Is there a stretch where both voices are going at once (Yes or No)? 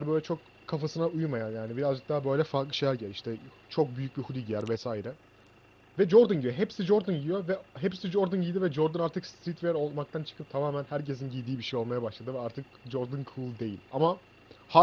No